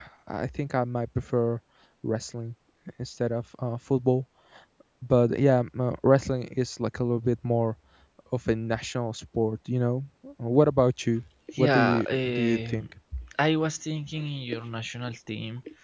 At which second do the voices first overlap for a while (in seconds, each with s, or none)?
11.5 s